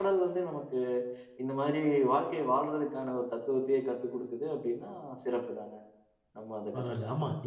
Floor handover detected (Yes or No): Yes